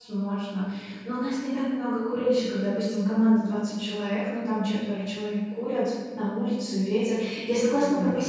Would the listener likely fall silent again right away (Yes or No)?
Yes